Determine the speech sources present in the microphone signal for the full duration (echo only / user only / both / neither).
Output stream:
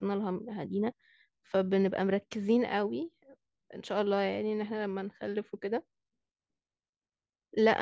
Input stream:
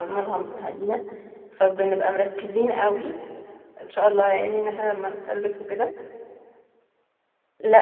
echo only